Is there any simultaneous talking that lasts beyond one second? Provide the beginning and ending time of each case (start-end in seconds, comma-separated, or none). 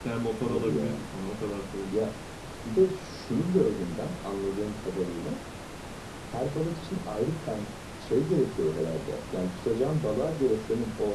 none